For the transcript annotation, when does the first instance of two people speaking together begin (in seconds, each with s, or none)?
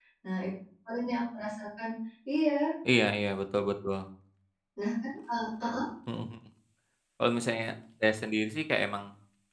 none